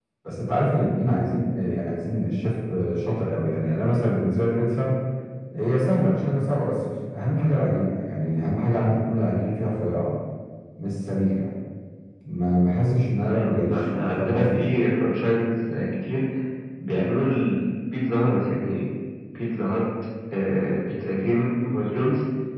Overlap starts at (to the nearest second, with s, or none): 13 s